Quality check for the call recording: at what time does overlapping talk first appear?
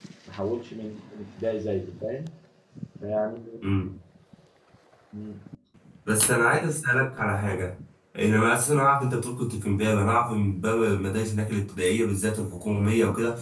none

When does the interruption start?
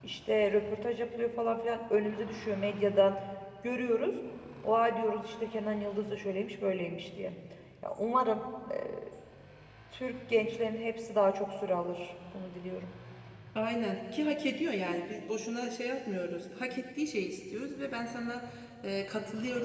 none

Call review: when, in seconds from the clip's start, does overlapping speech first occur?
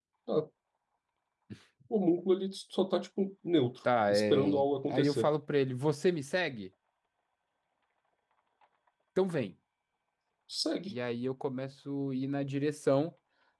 4 s

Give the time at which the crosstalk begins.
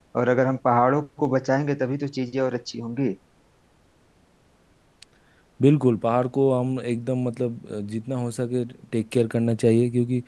none

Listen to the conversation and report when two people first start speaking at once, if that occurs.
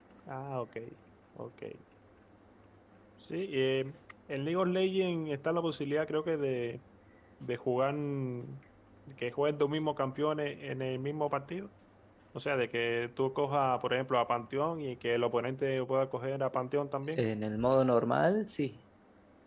none

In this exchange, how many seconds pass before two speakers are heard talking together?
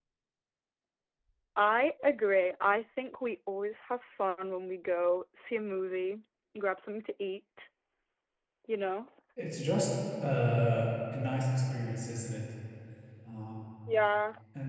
none

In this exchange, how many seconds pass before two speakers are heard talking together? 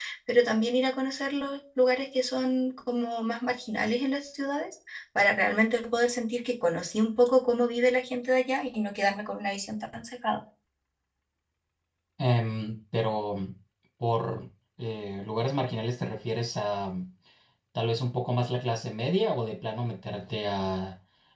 none

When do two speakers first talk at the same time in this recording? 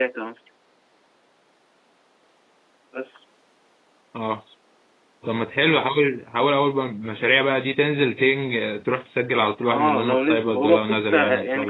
10 s

